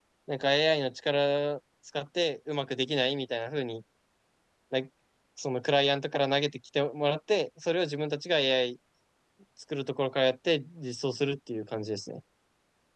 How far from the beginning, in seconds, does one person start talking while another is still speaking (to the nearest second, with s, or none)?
none